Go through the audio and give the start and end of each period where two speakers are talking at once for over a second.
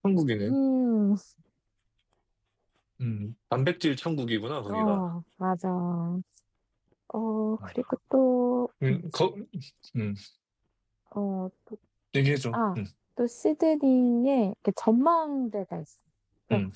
none

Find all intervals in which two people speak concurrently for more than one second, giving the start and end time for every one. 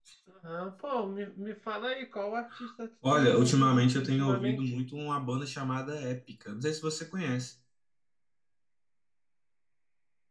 3.1-4.8

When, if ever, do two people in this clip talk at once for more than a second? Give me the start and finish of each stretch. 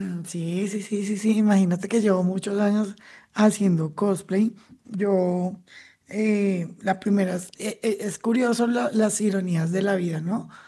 none

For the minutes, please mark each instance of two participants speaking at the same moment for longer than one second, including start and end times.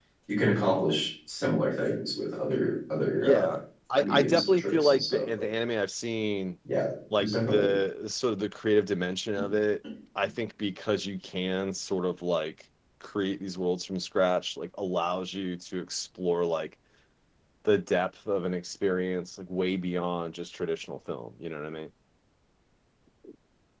4.0-5.5

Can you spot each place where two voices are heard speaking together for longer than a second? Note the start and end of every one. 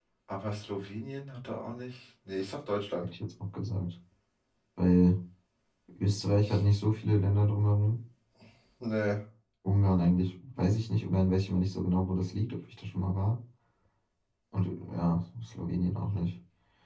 none

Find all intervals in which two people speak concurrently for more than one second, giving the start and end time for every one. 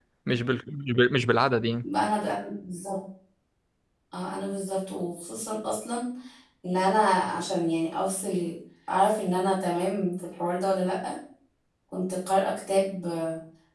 none

